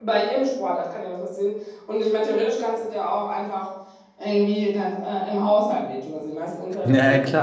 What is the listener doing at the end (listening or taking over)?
taking over